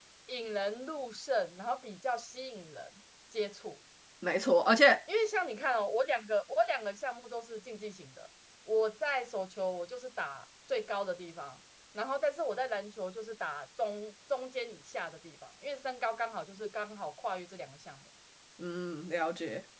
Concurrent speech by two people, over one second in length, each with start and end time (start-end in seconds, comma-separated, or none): none